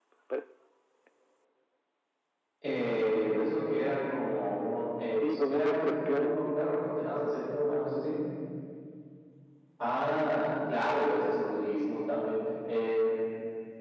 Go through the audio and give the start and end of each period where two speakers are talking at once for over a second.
5.2-6.6

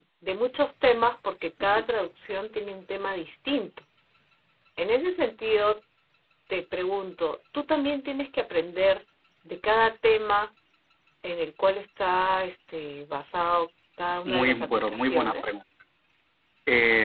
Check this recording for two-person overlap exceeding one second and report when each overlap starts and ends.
14.2-15.5

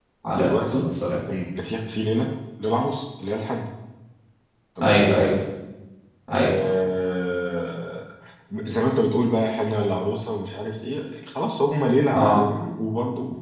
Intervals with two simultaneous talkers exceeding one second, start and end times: none

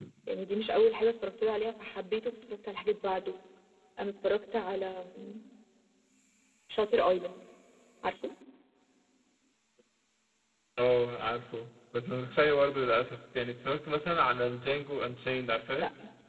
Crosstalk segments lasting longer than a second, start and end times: none

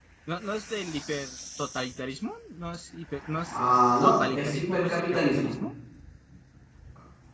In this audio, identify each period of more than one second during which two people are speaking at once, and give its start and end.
4.0-5.5

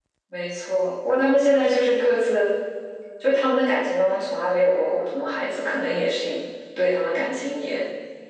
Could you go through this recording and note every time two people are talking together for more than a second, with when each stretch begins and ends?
none

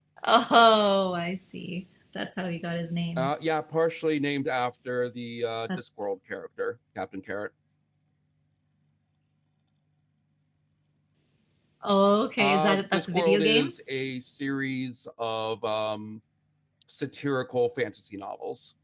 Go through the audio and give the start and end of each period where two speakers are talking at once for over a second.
12.4-13.7

